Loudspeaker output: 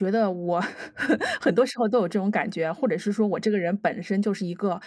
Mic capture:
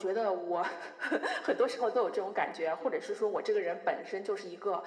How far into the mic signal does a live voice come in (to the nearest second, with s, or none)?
none